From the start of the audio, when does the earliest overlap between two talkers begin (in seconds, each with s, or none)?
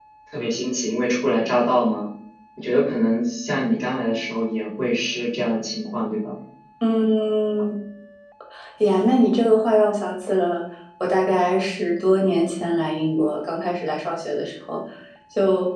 none